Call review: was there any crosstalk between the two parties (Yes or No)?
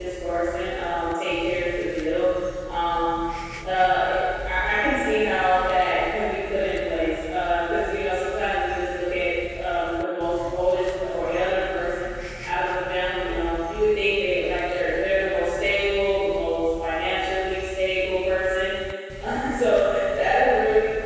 No